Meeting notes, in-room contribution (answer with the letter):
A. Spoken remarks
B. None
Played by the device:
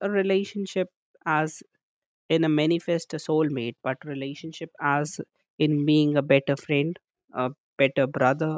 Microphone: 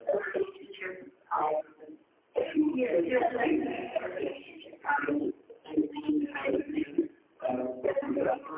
A